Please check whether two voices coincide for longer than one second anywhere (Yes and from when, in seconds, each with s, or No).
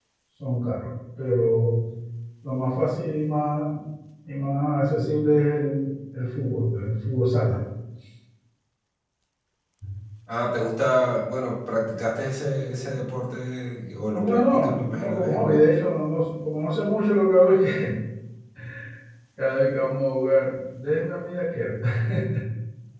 Yes, from 14.0 s